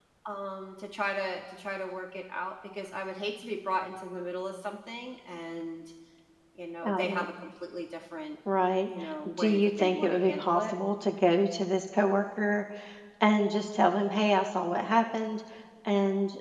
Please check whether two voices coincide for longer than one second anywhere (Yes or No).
Yes